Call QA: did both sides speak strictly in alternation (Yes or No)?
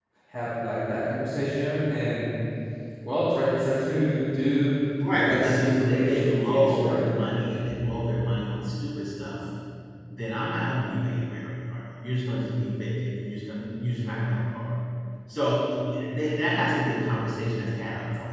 No